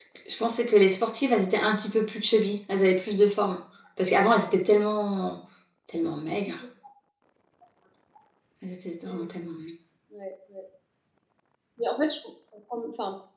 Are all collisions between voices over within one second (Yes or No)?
Yes